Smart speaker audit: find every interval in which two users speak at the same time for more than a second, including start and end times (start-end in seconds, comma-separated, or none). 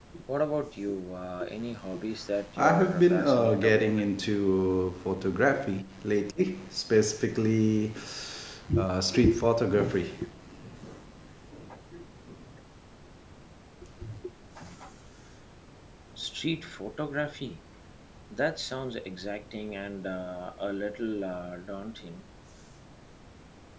2.6-4.0